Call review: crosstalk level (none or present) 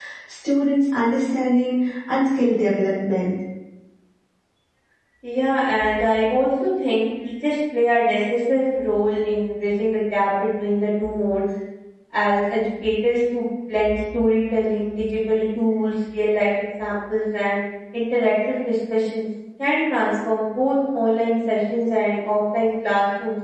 none